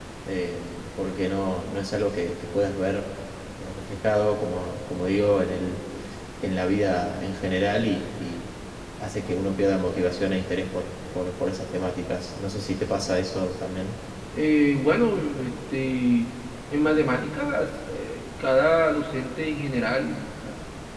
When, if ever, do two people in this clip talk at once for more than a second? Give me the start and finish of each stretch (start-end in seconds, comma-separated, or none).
none